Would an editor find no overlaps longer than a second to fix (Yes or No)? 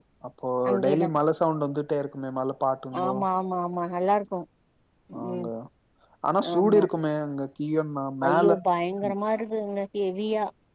Yes